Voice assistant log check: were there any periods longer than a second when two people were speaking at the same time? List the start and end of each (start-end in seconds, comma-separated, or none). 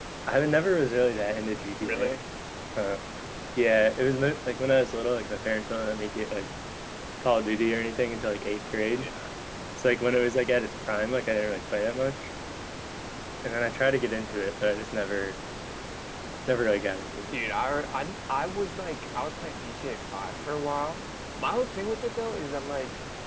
none